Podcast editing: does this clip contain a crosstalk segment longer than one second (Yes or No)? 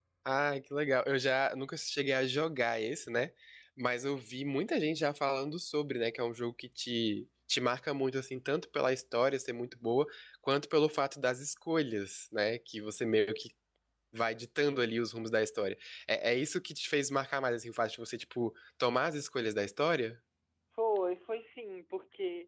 No